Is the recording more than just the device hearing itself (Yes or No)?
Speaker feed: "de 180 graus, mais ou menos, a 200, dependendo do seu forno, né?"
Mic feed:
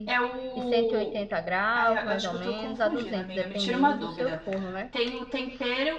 Yes